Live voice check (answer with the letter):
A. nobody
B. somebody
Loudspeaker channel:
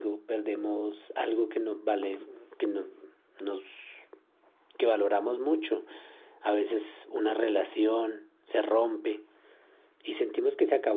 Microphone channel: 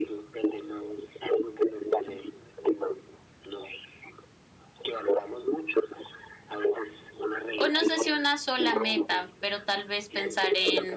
B